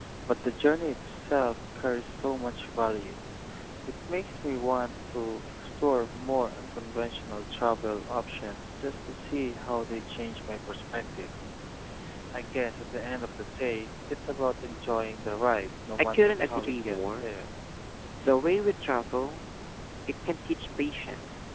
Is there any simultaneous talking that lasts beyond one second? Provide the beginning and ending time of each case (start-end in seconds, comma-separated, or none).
16.0-17.3